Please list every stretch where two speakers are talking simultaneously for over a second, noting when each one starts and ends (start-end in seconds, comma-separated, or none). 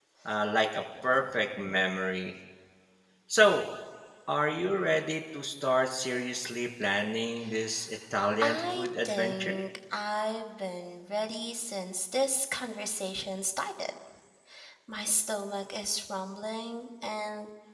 8.4-9.6